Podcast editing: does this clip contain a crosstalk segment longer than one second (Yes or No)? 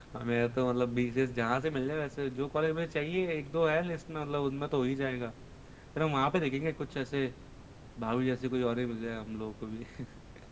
No